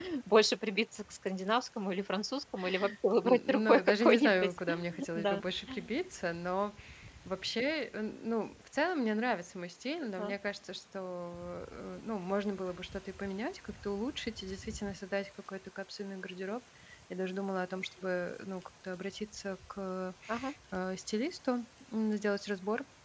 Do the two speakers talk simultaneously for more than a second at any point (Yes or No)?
Yes